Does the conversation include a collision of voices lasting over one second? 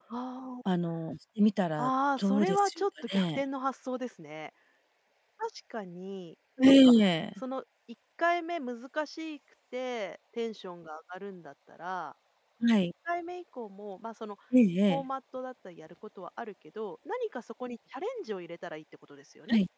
Yes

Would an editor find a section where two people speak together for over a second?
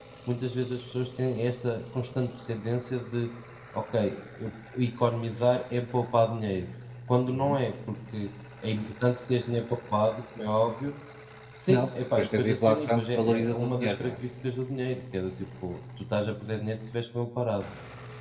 Yes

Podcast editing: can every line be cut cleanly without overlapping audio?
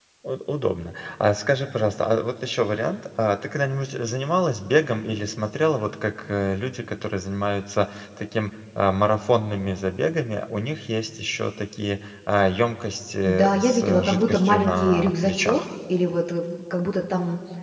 No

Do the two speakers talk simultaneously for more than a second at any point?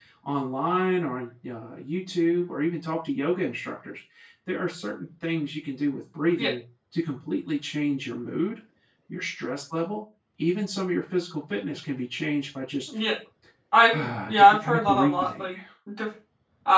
Yes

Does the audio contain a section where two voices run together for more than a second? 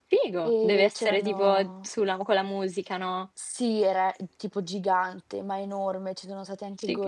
Yes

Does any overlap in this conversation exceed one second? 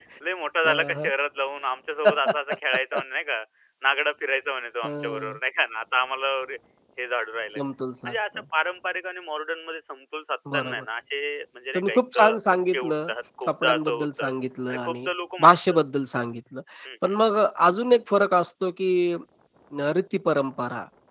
Yes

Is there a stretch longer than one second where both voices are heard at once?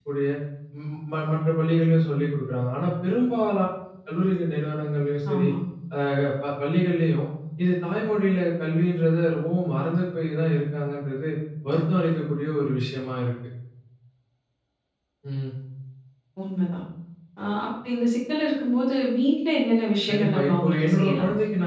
Yes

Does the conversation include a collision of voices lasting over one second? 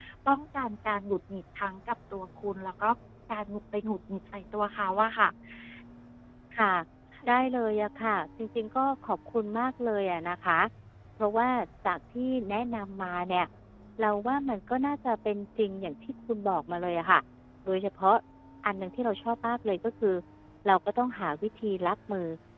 No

